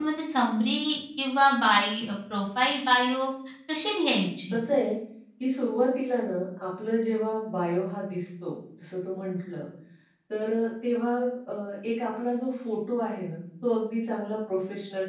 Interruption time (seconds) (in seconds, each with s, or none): none